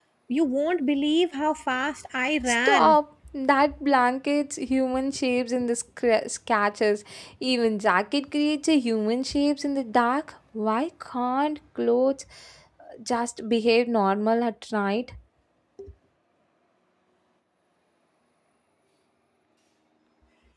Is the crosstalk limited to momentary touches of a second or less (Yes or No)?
Yes